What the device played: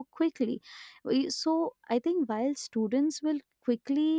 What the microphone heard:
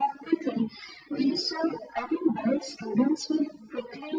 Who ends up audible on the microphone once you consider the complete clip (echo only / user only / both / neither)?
echo only